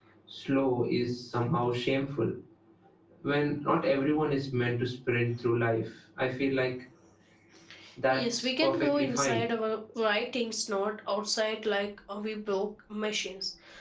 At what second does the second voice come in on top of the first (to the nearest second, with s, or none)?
8 s